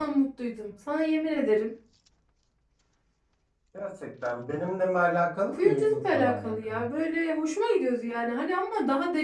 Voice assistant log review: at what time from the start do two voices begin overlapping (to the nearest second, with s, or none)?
6 s